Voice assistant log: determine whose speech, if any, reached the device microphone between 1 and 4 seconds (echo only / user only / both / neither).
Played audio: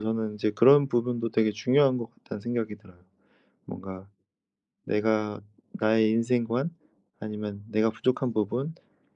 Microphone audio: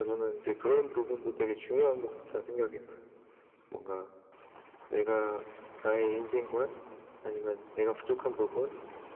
echo only